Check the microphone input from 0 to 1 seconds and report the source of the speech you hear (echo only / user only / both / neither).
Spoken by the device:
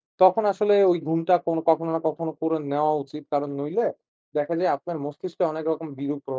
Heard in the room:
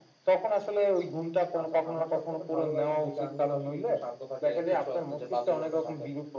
echo only